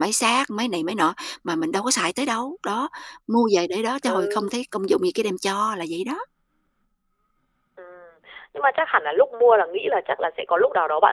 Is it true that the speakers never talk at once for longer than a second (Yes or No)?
Yes